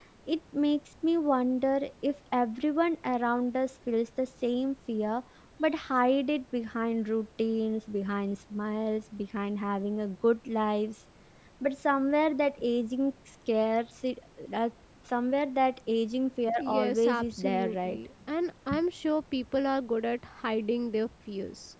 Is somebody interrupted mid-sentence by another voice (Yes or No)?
Yes